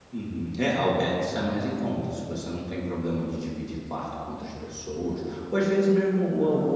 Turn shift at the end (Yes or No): No